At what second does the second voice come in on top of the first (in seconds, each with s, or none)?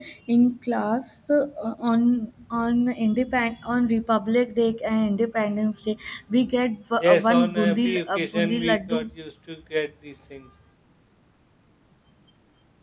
7.0 s